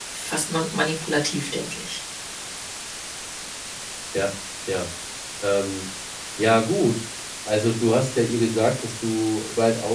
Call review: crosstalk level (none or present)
none